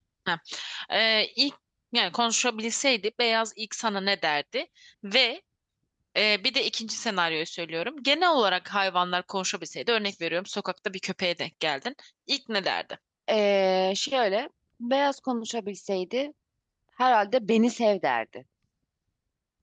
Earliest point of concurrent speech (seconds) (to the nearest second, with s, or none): none